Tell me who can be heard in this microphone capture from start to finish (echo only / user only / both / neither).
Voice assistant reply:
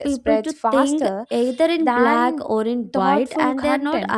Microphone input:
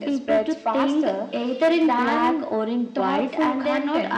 echo only